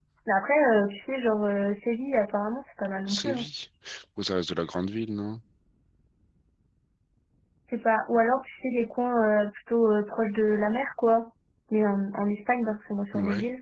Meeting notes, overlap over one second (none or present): none